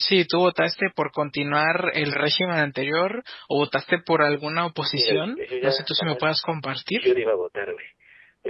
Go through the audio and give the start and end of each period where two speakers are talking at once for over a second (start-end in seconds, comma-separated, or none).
5.0-6.4